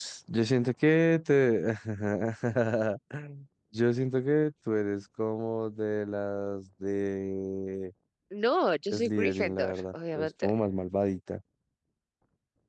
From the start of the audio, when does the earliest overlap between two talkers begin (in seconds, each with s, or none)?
8.9 s